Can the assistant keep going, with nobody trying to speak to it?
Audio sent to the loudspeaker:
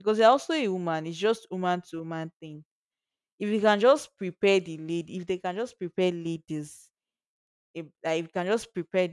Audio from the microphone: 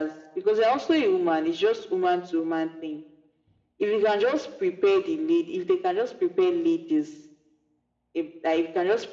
Yes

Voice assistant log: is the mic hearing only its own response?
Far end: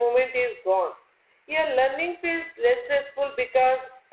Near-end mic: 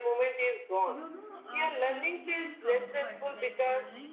No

